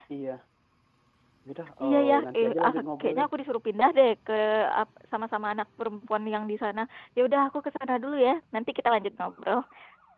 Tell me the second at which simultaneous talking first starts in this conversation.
2 s

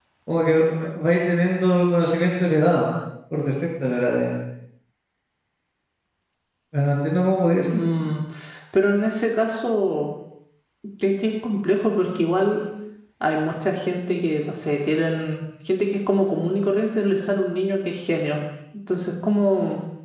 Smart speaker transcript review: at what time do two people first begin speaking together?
none

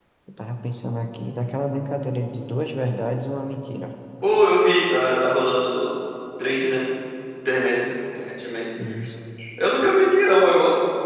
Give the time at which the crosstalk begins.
none

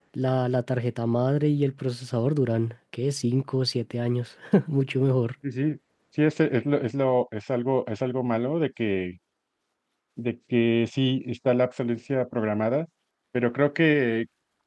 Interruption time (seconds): none

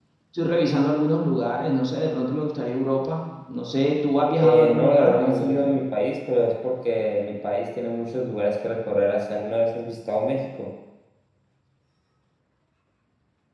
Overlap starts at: 4 s

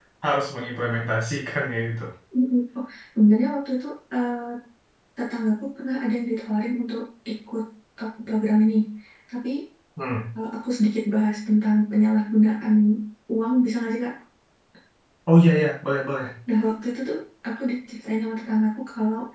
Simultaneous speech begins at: none

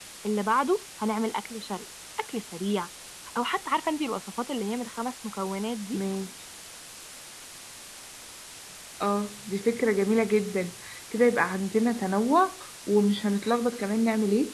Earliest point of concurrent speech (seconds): none

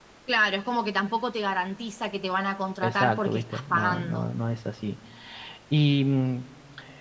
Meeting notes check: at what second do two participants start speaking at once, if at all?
3 s

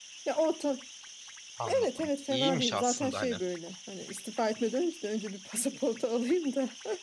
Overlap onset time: 2 s

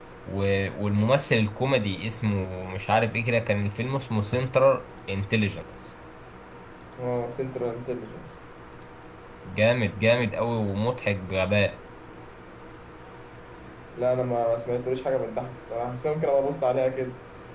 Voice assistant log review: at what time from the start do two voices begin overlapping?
none

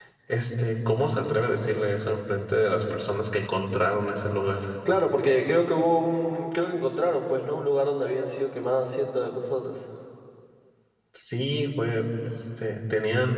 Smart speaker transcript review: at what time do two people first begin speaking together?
none

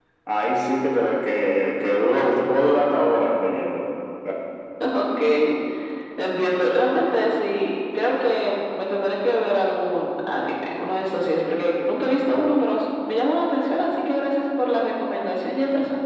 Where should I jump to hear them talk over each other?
none

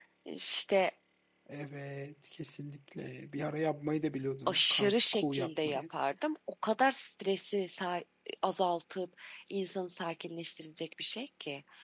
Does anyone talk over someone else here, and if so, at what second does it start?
4 s

